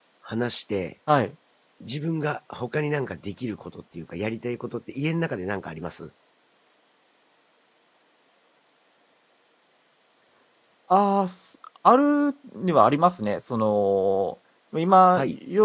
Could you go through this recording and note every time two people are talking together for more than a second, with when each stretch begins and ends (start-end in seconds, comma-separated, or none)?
none